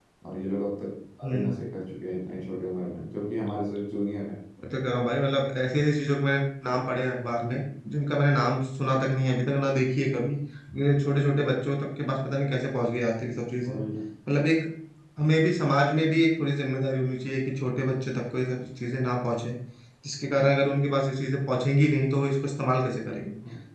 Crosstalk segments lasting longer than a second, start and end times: none

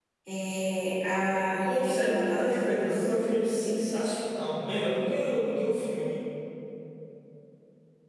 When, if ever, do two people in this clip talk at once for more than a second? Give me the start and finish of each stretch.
1.6-3.0

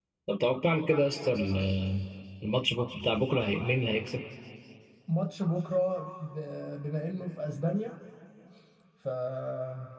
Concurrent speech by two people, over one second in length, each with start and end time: none

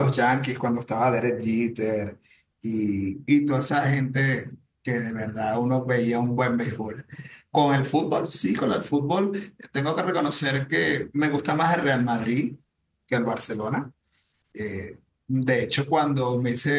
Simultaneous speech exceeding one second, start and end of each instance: none

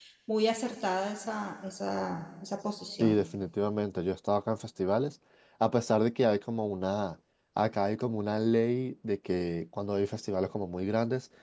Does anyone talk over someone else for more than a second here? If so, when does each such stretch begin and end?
none

